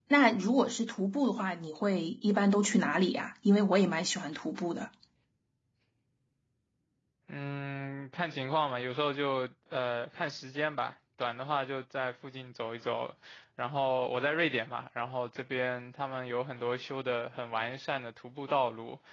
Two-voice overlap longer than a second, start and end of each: none

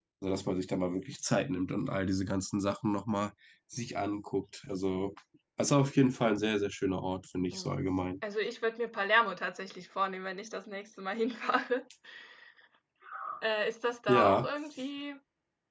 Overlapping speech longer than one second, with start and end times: none

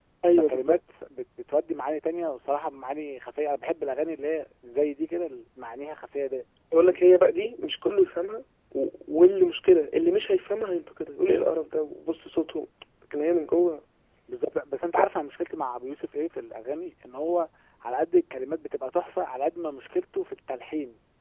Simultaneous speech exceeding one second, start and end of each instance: none

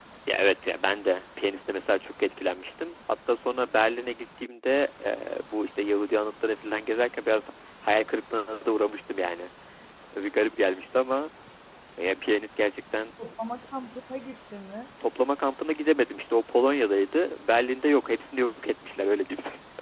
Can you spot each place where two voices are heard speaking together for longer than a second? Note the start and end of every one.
none

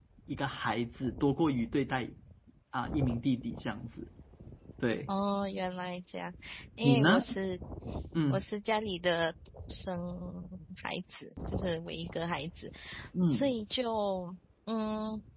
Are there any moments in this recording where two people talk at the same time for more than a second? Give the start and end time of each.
none

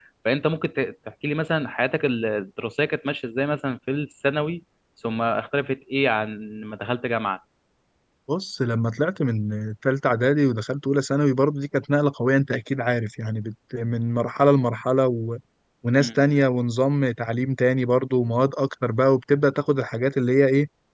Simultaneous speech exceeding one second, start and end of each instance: none

